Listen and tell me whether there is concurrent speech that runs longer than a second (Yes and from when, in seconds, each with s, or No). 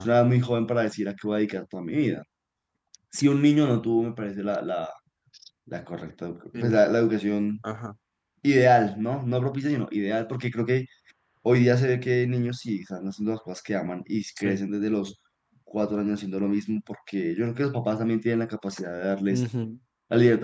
No